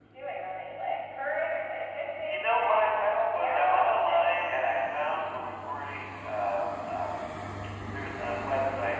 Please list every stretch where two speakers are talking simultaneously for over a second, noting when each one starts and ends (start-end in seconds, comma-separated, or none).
2.2-3.8